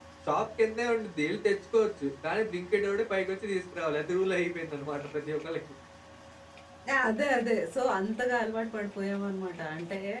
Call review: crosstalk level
none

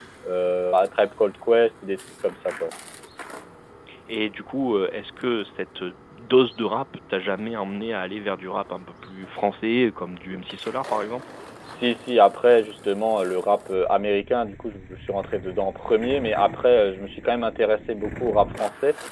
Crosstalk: none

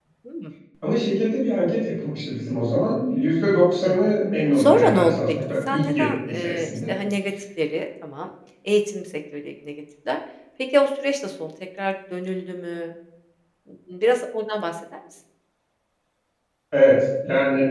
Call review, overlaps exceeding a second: present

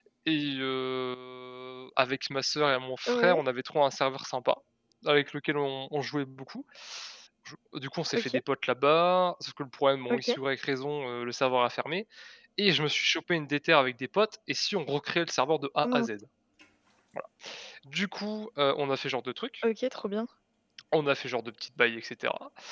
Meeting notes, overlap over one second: none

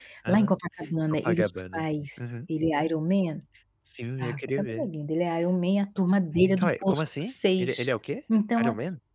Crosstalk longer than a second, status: present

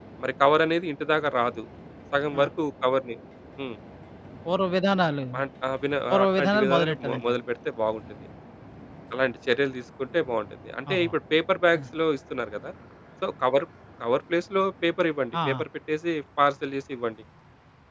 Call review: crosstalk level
present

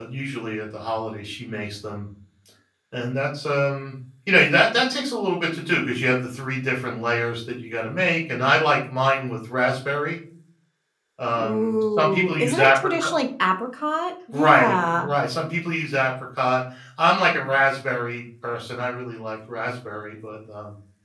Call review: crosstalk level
present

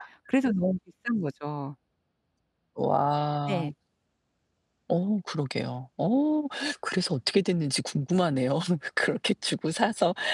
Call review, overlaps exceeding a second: none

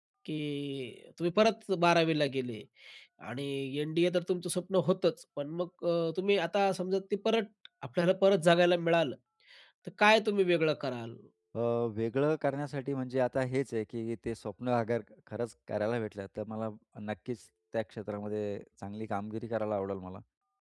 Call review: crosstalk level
none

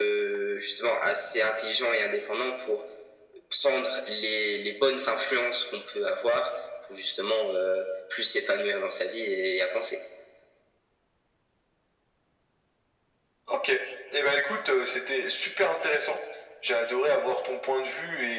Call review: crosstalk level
none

